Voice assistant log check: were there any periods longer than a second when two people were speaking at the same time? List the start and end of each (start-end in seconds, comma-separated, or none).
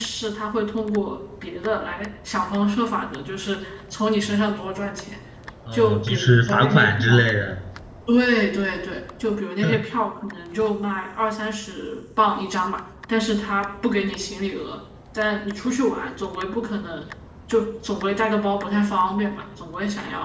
5.7-7.3